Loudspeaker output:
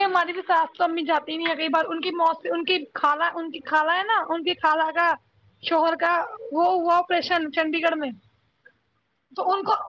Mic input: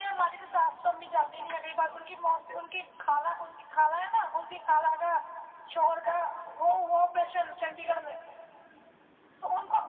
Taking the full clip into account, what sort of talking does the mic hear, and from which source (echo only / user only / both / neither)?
echo only